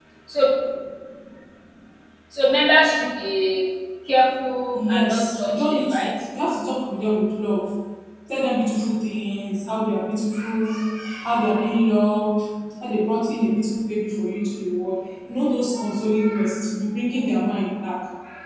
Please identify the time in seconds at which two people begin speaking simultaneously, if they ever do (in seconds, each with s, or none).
4.7 s